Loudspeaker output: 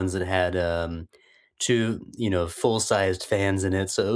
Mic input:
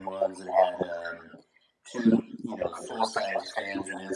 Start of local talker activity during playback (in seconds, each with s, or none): none